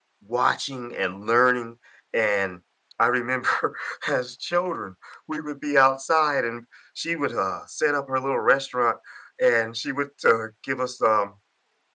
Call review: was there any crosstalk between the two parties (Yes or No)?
No